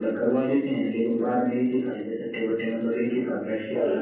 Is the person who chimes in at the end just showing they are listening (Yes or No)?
No